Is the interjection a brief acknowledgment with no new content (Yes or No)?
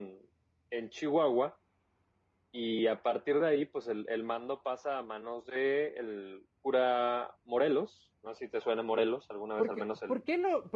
No